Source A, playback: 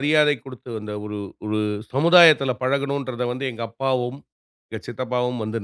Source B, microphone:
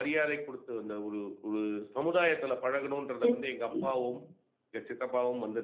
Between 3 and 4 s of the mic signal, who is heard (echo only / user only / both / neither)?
both